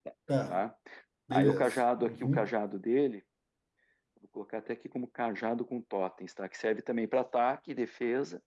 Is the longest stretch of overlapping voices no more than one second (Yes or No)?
No